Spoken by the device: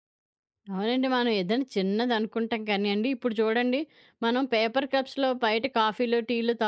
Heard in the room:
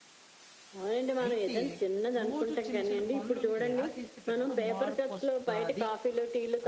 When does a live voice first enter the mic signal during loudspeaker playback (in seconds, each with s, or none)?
1.2 s